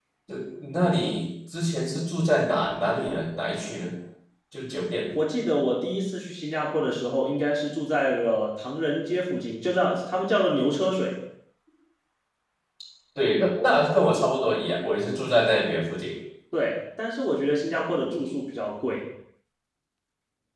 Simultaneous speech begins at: none

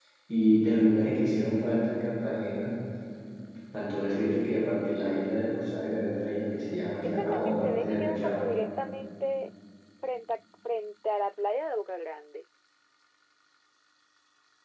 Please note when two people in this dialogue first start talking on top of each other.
7.0 s

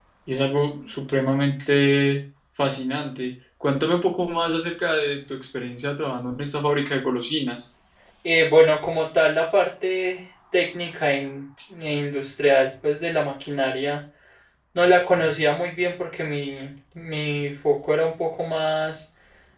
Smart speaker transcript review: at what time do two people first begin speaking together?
none

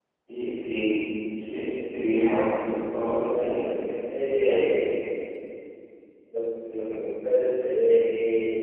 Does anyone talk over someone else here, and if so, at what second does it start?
3.1 s

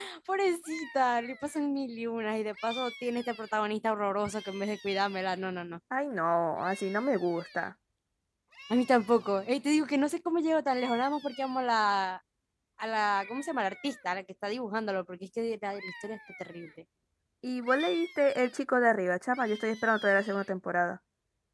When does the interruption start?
none

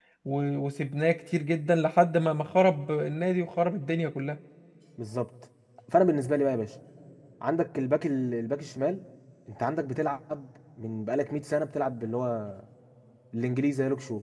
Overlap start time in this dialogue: none

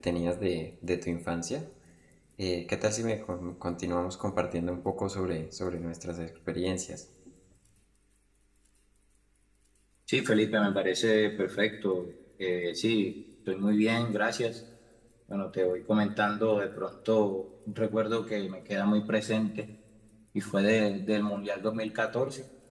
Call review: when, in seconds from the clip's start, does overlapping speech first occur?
none

